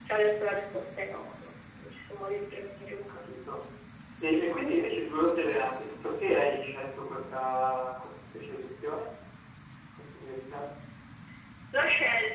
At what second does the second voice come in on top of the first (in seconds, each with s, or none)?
none